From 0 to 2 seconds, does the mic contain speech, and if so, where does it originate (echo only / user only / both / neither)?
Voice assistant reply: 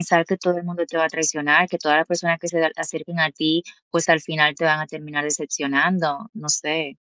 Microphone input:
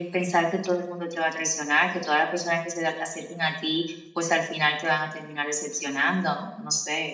echo only